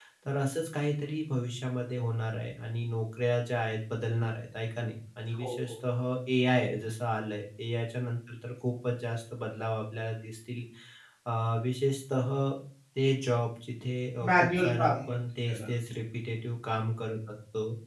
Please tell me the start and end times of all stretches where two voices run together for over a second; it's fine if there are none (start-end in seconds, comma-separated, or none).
14.3-15.6